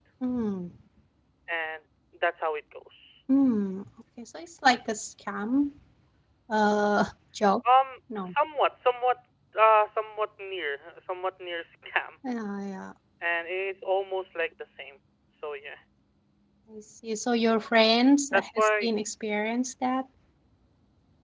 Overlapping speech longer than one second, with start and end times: none

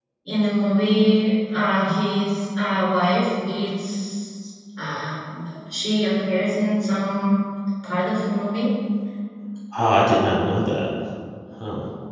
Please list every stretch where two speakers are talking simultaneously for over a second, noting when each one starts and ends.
none

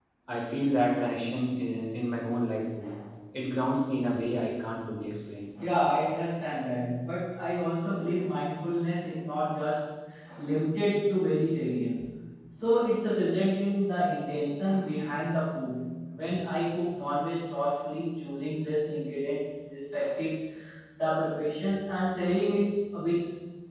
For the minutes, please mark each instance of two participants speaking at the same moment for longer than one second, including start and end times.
none

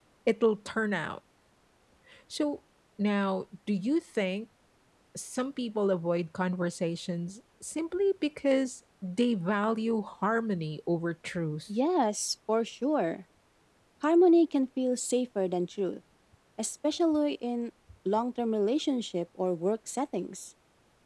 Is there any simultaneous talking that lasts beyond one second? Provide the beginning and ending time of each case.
none

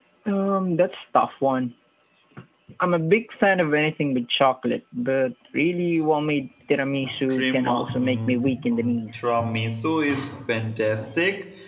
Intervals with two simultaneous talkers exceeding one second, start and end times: 7.3-9.2

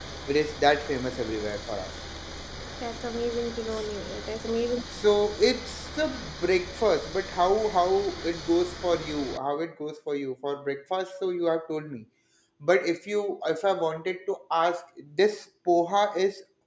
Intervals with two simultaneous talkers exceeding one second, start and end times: none

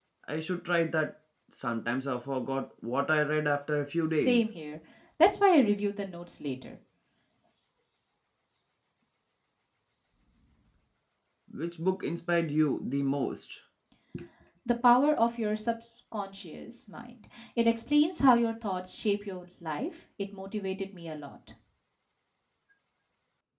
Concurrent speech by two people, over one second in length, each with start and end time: none

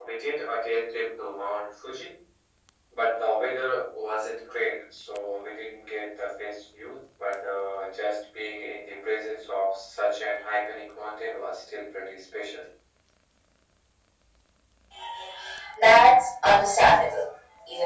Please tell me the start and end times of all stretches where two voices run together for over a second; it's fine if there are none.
none

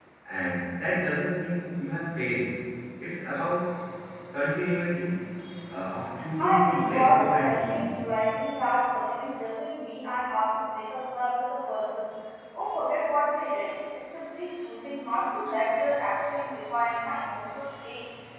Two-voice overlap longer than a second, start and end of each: 6.4-7.8

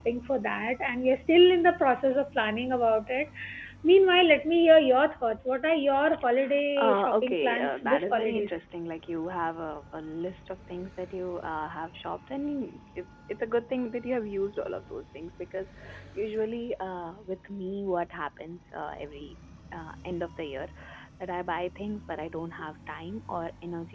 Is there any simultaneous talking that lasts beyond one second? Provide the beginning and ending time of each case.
6.8-8.6

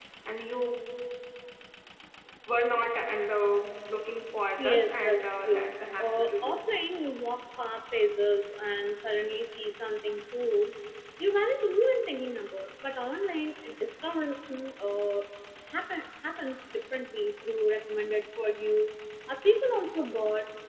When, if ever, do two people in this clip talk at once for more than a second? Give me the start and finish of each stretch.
4.6-6.7

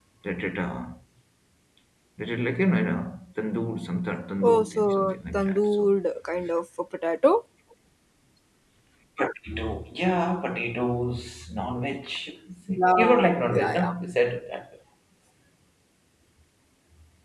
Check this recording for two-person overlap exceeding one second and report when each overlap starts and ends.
4.4-5.9, 12.7-13.9

